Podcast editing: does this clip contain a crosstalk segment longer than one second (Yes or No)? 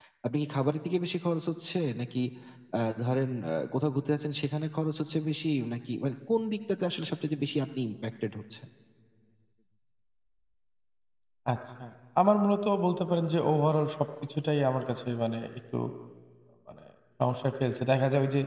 No